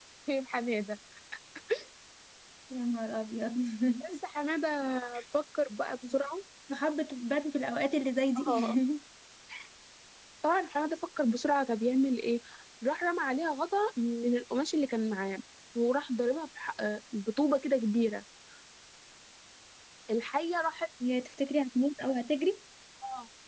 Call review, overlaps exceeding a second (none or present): none